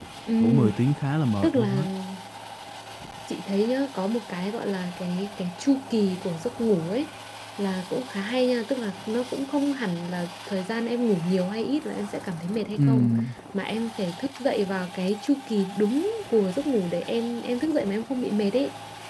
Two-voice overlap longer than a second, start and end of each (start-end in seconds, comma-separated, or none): none